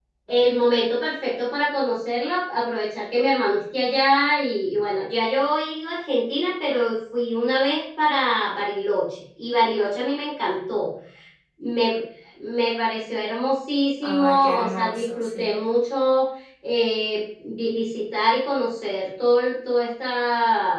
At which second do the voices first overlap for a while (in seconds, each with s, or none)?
14.0 s